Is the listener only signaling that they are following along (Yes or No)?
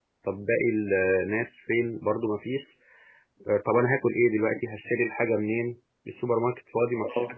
No